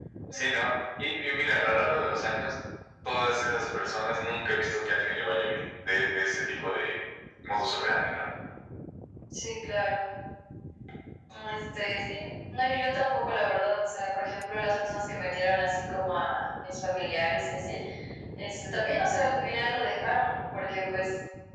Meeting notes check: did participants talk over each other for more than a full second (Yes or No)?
No